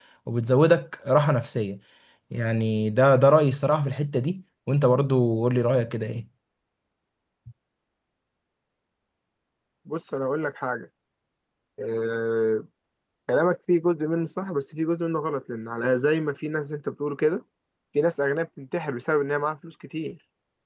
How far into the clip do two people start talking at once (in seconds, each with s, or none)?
none